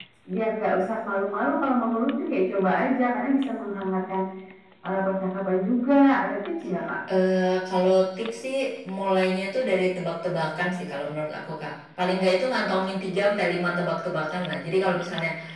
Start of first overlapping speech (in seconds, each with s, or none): none